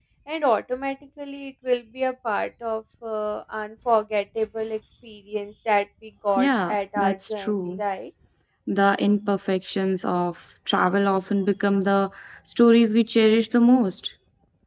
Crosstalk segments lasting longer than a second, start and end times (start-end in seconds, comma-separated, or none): 6.4-7.8